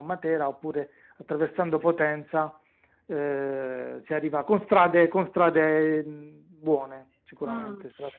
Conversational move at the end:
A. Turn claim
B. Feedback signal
A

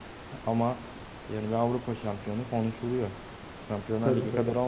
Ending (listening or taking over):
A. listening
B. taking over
A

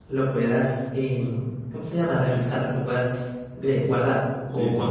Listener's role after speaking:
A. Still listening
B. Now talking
B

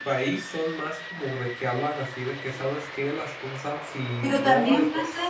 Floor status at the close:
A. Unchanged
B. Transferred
B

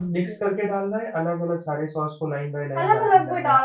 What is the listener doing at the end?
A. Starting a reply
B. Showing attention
A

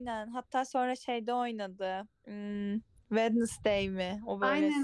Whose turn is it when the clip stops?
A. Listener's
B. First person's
A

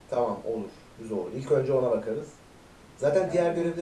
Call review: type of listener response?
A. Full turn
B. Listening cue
B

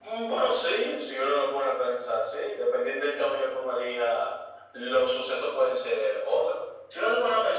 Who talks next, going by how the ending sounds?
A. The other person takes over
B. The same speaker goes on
B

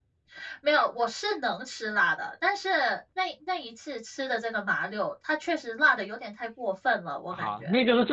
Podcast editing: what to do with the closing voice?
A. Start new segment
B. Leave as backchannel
A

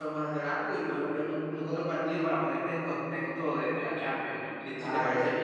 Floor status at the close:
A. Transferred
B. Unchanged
A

